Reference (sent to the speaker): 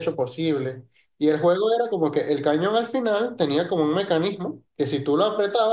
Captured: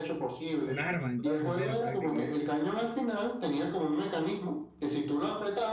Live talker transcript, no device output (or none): Un arma, entonces era prácticamente.